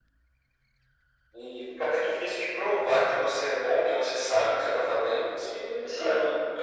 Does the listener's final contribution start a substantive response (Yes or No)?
No